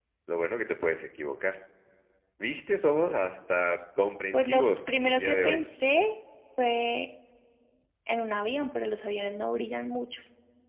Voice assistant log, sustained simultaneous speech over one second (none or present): present